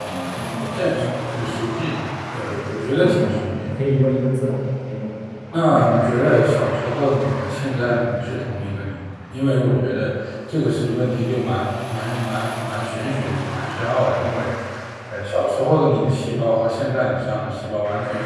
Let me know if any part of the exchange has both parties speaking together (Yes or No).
Yes